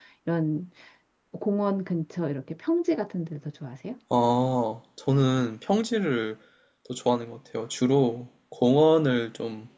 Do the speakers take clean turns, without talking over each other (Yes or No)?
Yes